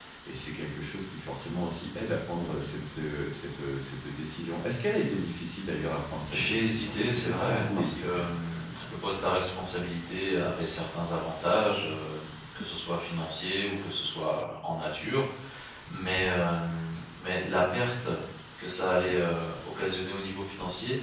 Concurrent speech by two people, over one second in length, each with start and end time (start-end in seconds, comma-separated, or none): 6.3-8.2